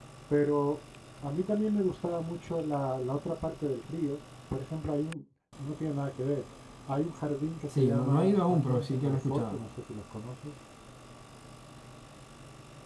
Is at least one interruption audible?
Yes, from 7.7 s

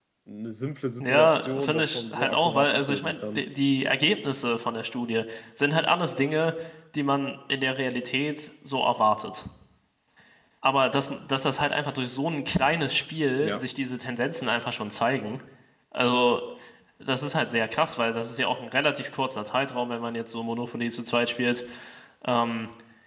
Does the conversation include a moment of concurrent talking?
Yes, from 1.0 s

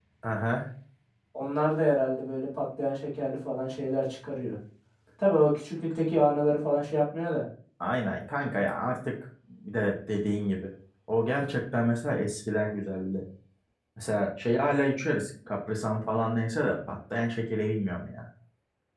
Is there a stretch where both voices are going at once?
No

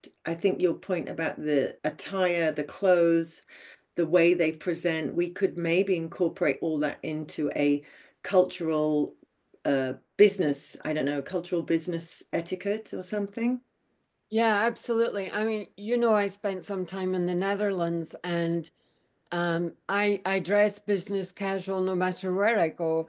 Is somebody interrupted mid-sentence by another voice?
No

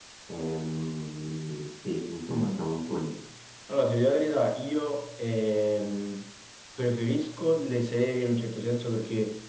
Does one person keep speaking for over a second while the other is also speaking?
No

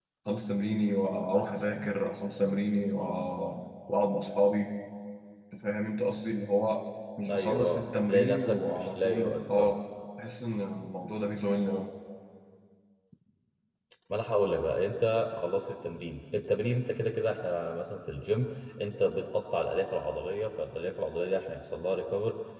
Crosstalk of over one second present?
Yes, from 7.3 s

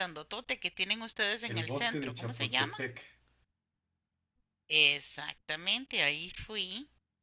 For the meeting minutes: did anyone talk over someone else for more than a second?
Yes, from 1.5 s

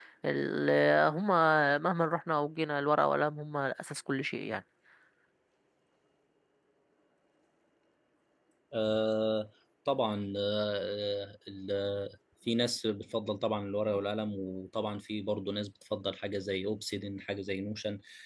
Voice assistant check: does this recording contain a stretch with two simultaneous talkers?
No

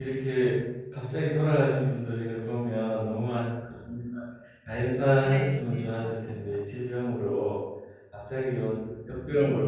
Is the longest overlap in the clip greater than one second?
Yes, from 5.2 s

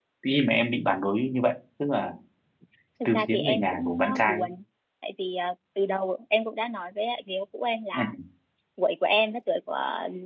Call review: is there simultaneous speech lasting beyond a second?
Yes, from 3.0 s

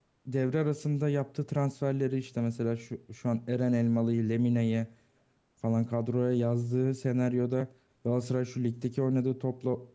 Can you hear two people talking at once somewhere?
No

